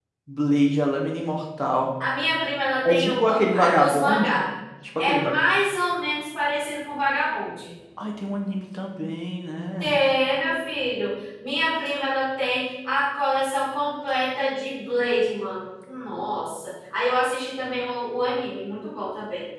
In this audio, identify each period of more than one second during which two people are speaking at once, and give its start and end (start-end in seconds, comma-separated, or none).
2.9-4.4